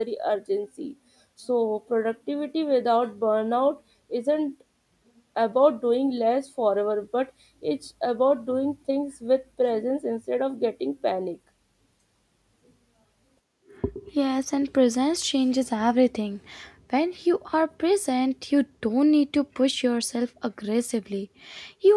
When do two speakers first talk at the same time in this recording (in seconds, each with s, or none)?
none